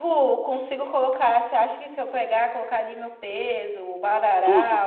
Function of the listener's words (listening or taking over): listening